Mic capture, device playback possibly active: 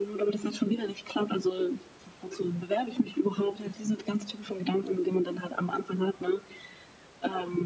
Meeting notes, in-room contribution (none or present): none